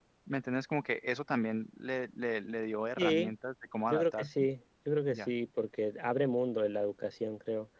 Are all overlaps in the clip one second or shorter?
Yes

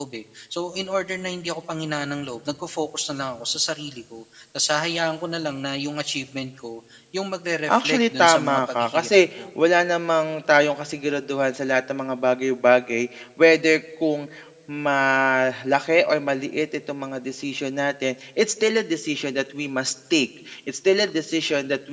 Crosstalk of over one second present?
Yes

